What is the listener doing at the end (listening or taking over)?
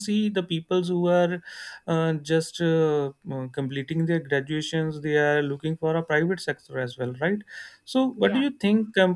listening